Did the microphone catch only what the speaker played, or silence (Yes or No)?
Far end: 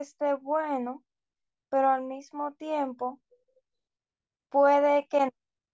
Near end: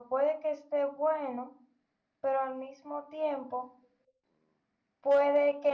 Yes